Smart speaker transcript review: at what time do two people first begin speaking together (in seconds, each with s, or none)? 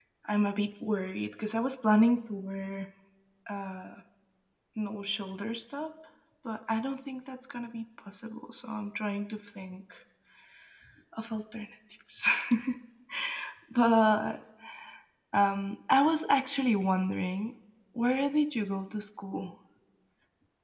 none